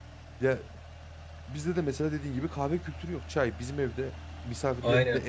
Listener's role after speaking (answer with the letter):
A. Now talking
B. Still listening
B